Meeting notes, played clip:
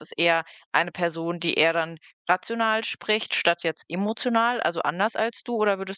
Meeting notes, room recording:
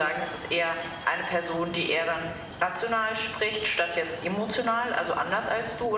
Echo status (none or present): present